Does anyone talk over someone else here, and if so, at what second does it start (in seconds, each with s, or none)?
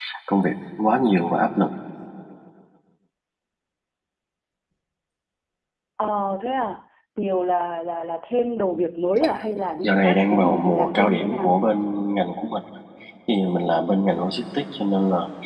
9.8 s